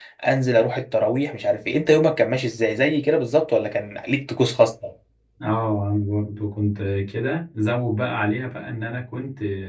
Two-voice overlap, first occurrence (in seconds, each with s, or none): none